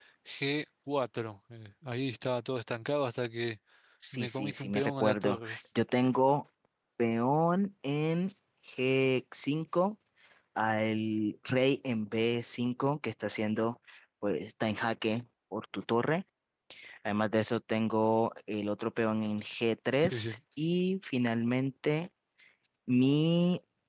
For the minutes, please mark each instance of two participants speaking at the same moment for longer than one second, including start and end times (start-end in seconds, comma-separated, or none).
4.1-5.5